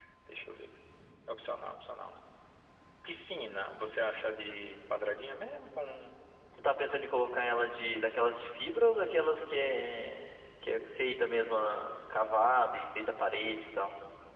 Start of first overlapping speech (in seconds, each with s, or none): none